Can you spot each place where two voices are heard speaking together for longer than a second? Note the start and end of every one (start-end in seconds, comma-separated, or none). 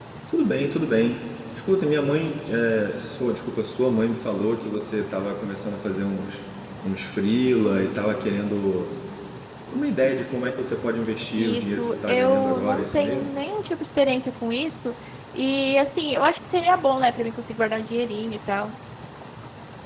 11.3-13.3